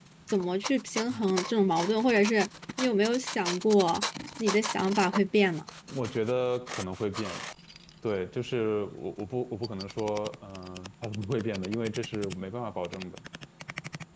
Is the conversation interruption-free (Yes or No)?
Yes